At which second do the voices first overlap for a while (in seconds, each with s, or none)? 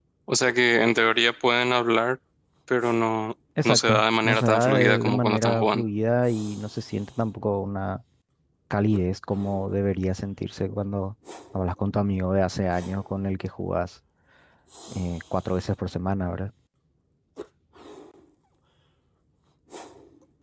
3.6 s